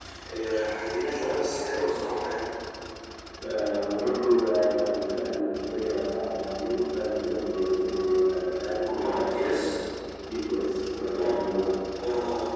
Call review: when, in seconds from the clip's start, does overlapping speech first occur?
8.3 s

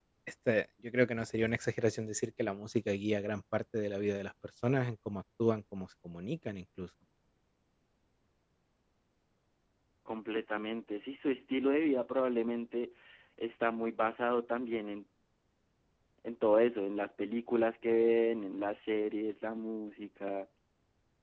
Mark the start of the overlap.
none

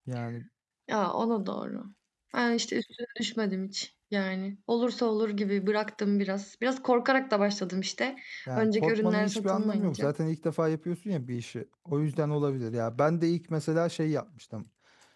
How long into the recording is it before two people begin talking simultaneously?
8.6 s

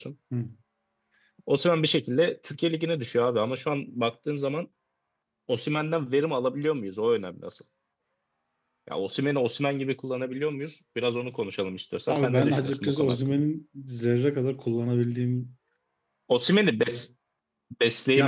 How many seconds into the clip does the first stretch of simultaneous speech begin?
12.1 s

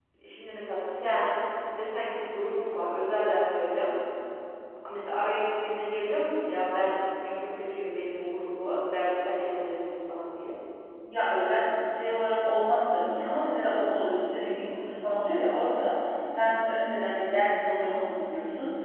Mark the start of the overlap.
none

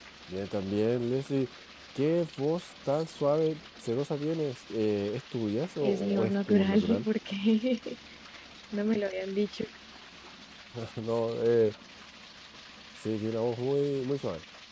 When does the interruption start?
5.8 s

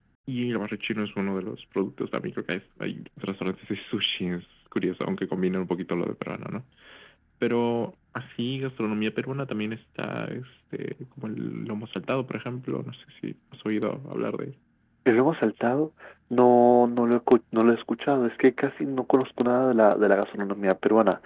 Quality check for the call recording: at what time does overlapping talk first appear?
none

